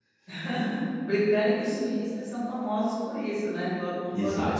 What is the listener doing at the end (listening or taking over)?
taking over